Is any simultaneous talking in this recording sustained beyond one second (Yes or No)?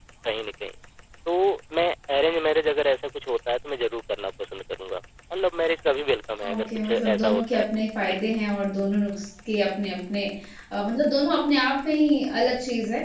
Yes